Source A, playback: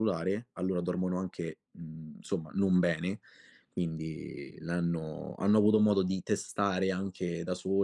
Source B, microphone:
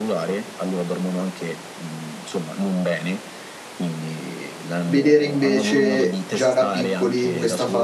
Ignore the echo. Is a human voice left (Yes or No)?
Yes